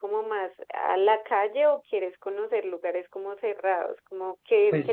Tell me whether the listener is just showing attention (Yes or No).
No